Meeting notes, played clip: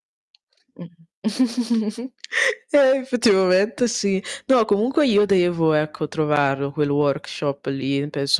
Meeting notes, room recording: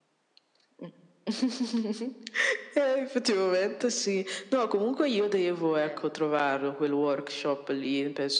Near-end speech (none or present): present